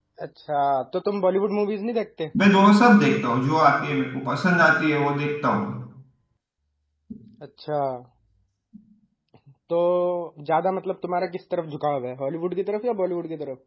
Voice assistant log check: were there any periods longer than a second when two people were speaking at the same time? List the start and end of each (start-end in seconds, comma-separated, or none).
none